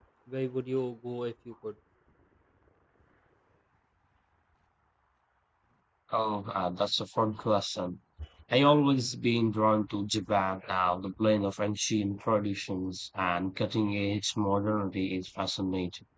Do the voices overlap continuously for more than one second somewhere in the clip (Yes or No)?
No